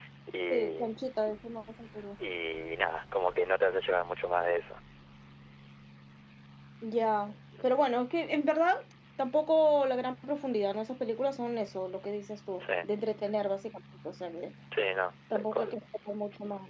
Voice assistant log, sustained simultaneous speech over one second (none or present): none